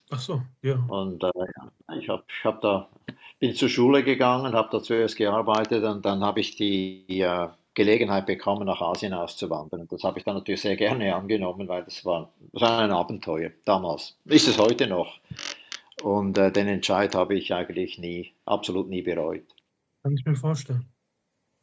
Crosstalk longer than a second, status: none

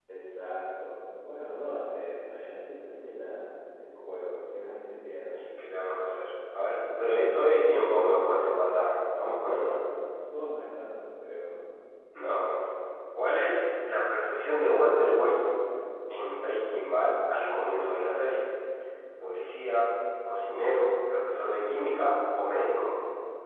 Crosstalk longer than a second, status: none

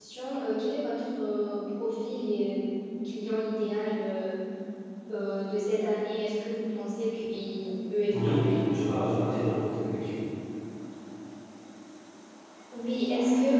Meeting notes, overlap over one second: none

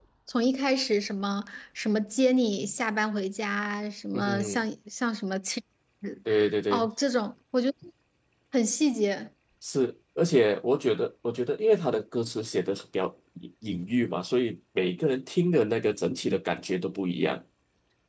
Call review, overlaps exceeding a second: none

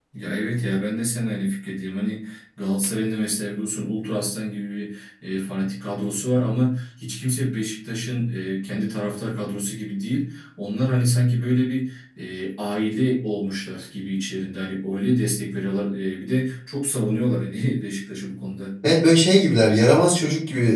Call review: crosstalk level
none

